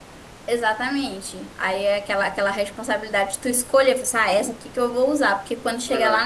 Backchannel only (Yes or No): Yes